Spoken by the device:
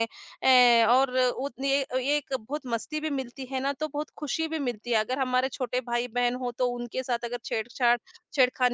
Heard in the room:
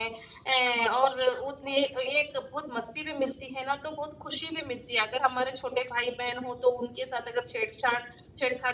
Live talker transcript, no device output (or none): none